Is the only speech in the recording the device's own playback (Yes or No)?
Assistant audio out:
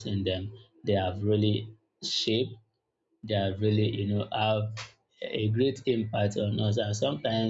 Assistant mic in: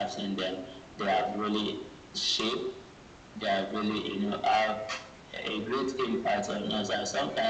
Yes